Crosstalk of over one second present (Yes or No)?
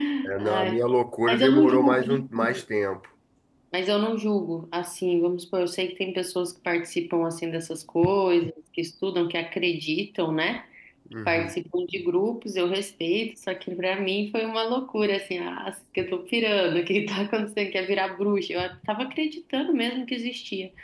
Yes